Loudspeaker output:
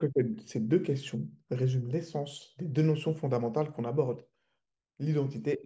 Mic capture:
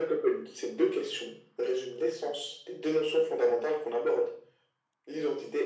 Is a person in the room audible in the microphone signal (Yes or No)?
No